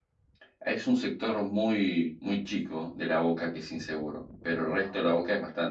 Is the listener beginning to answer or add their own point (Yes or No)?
No